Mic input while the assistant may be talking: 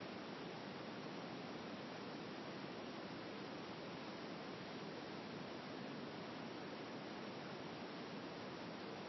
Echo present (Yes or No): No